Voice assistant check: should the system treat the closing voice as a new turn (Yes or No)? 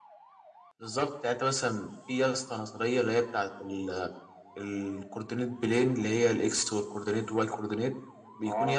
No